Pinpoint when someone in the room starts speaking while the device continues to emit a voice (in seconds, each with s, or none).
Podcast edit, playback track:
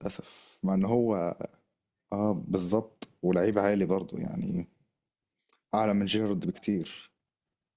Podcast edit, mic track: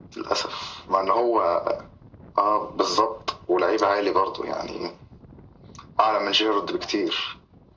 none